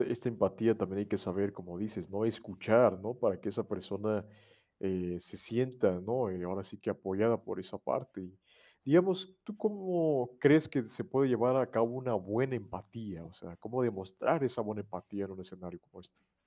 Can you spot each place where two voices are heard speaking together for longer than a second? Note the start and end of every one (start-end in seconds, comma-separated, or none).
none